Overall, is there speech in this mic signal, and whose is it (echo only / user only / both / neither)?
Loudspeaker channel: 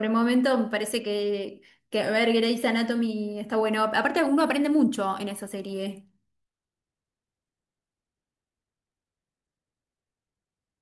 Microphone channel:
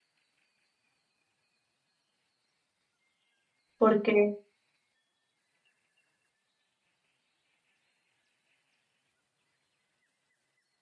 user only